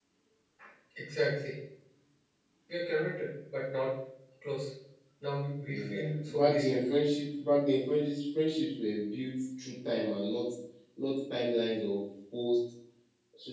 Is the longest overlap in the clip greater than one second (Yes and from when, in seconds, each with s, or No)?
Yes, from 5.7 s